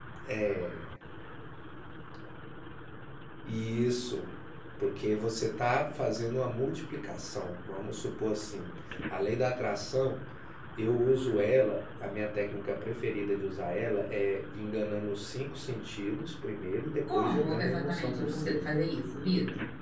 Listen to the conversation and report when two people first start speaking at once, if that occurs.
17 s

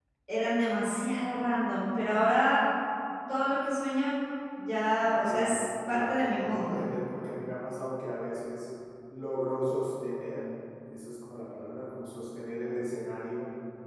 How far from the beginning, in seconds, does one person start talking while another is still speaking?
5 s

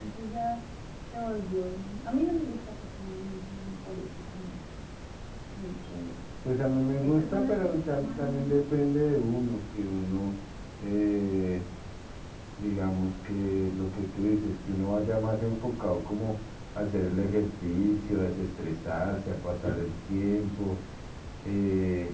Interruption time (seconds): 7 s

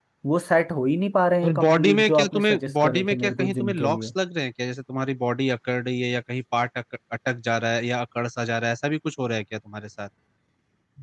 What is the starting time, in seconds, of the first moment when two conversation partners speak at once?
1 s

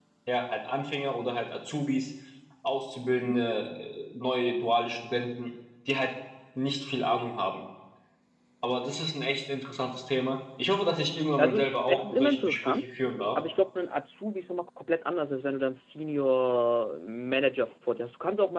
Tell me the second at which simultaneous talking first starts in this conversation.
11 s

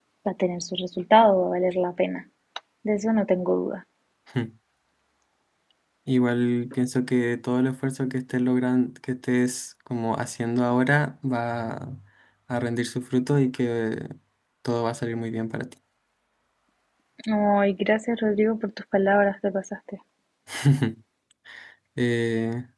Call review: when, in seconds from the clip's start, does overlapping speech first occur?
none

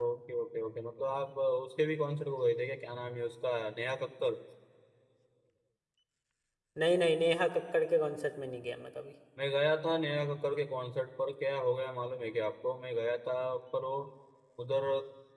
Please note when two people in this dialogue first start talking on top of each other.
none

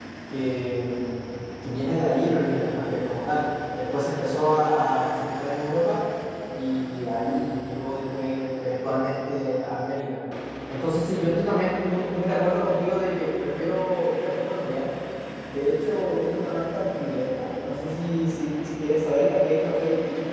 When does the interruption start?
none

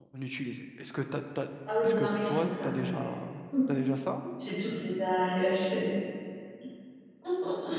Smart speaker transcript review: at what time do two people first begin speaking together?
2 s

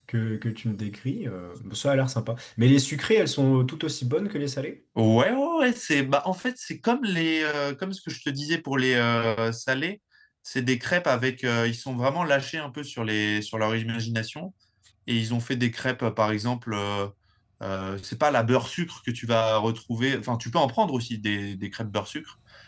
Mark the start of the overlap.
none

